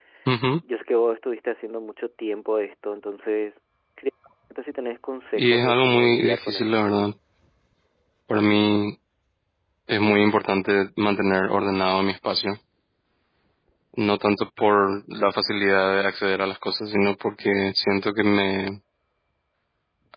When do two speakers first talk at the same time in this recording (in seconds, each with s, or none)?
5.3 s